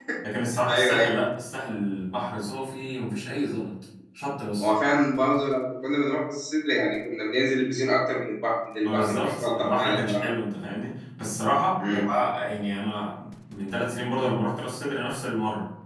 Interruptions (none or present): present